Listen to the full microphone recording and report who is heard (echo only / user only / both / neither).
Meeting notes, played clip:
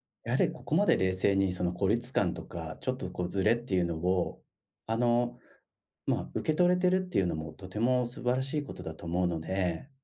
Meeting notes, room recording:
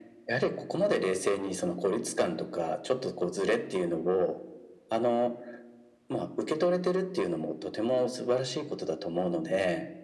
echo only